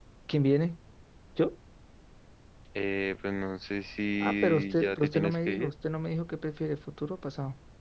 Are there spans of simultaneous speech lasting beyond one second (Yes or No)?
Yes